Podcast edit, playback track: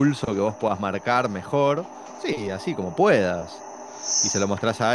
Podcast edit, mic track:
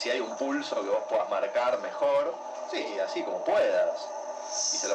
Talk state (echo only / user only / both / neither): echo only